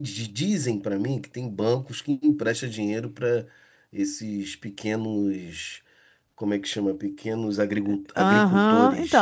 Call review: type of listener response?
taking over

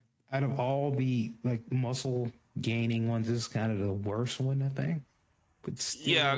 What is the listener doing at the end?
taking over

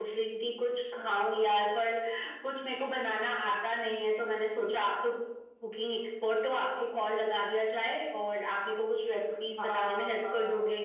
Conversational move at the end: taking over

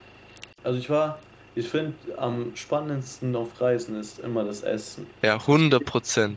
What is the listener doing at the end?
taking over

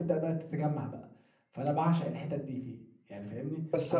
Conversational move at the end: taking over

